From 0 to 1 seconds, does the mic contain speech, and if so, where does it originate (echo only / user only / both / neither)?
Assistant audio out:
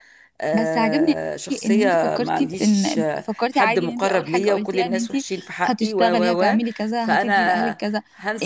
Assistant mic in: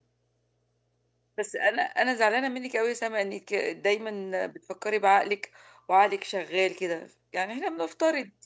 neither